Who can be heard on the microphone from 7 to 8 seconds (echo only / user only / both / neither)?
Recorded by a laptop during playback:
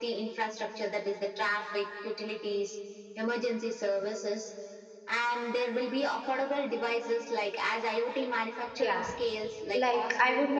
echo only